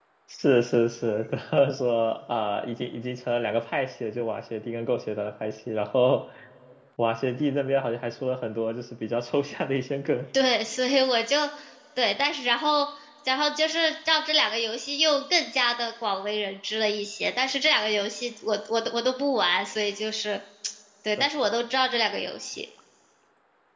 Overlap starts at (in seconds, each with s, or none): none